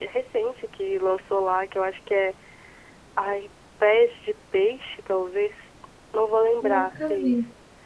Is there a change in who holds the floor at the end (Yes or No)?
No